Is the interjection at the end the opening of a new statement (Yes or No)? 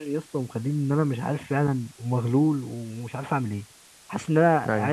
No